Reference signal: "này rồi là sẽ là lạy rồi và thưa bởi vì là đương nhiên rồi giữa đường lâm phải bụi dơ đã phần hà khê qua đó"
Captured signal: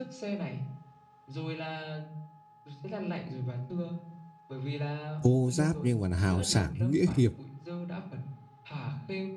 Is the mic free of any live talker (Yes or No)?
No